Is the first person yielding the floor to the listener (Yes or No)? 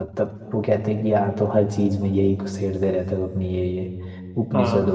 No